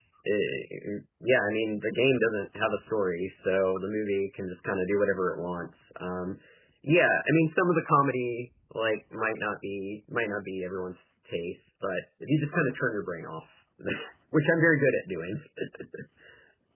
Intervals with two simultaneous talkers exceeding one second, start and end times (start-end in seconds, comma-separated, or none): none